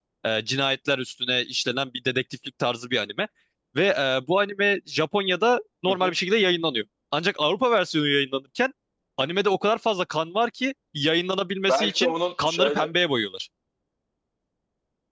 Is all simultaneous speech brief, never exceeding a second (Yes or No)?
No